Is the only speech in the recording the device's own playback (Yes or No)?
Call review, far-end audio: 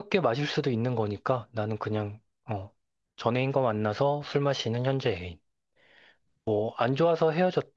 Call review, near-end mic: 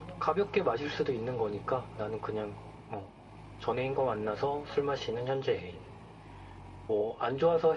Yes